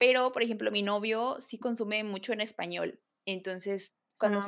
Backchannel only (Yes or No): Yes